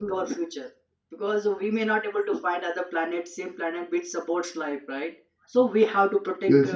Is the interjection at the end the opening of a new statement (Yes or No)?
No